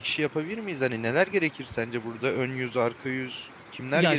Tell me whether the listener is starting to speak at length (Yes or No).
Yes